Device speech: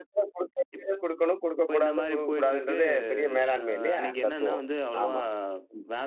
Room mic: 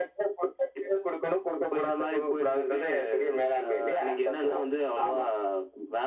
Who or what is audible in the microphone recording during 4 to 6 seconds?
echo only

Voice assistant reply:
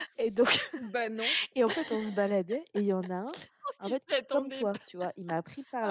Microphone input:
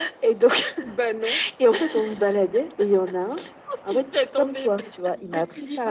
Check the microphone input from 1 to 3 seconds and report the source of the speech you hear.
echo only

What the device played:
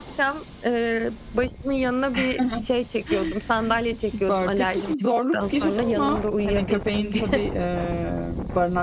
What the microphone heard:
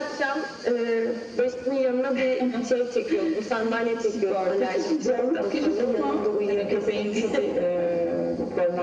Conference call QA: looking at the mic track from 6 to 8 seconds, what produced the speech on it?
echo only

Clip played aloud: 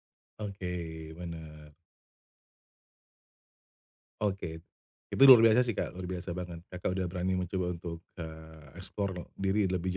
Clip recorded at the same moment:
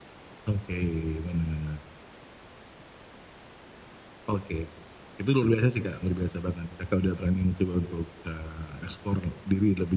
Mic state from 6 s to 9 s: echo only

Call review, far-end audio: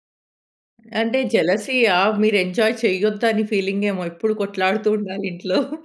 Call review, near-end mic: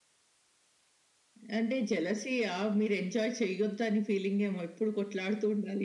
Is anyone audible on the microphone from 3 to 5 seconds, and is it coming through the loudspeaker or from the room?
echo only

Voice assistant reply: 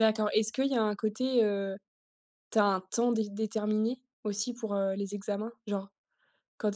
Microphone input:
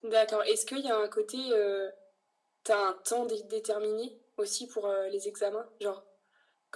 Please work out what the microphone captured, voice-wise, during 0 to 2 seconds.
echo only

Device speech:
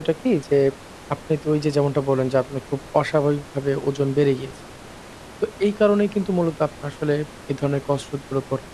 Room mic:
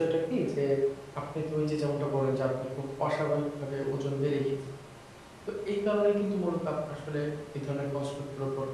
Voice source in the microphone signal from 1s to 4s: echo only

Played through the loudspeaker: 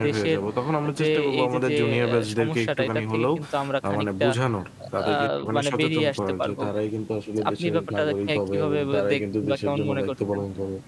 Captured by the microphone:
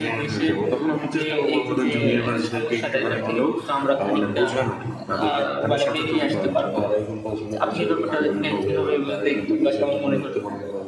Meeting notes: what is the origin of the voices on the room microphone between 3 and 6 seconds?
echo only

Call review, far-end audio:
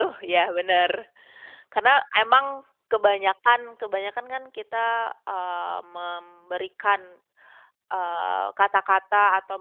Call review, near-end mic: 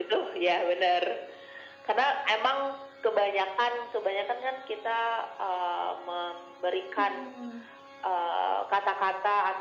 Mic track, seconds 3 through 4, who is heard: echo only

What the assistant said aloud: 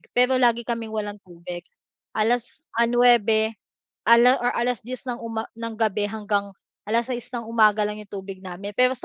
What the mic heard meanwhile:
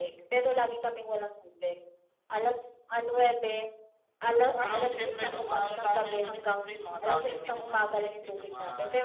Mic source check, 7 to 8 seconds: both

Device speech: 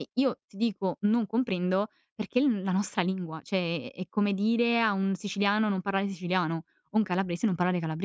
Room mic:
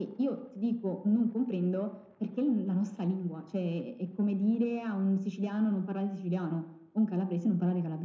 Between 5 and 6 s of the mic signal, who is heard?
echo only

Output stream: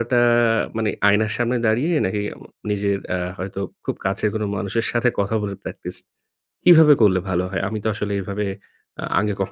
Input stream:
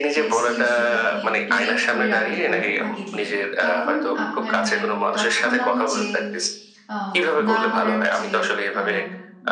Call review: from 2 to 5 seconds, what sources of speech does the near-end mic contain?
both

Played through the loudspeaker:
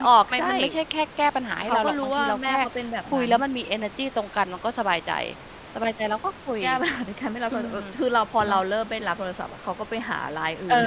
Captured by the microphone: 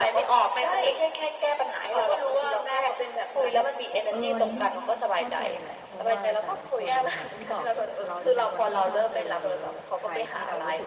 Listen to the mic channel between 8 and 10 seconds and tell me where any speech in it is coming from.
both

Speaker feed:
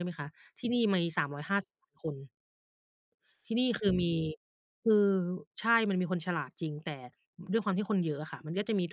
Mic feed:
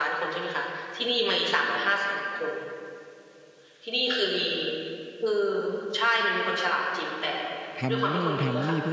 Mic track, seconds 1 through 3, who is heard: echo only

